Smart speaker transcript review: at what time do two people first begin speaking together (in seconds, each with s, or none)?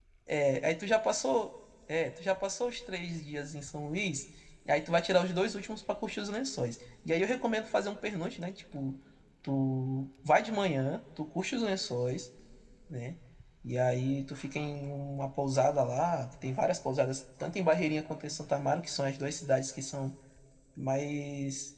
none